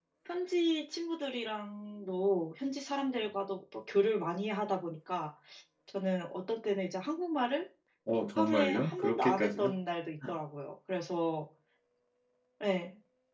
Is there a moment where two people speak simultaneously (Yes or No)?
Yes